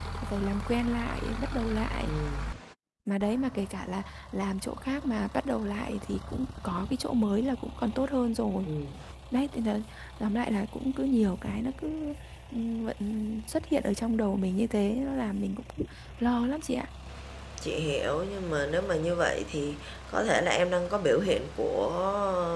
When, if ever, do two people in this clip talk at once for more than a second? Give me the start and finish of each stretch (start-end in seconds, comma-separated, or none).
none